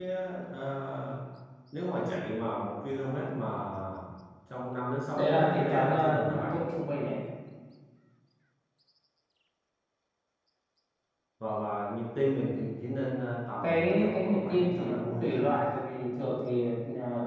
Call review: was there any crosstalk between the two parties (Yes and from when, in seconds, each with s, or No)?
Yes, from 5.2 s